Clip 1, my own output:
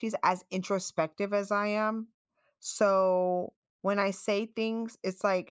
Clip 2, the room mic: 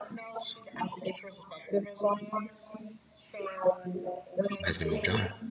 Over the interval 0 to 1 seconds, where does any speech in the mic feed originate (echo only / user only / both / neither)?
echo only